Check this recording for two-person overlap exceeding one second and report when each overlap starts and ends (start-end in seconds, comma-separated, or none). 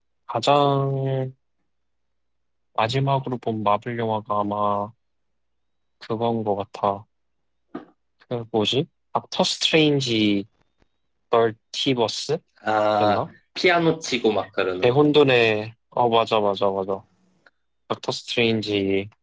none